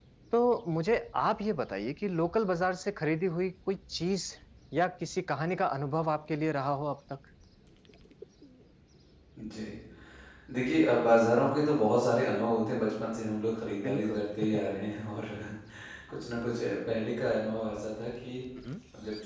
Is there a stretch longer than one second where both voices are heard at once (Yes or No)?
No